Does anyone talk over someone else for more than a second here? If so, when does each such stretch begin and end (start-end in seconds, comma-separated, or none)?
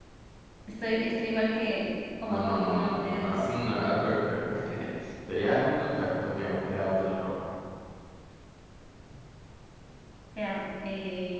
2.3-3.5